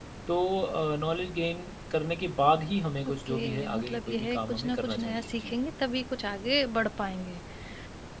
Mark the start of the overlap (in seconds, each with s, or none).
3.0 s